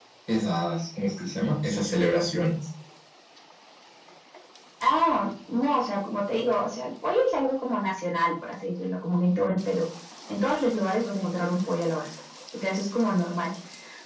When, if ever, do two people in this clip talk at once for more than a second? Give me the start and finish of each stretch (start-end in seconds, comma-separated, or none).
none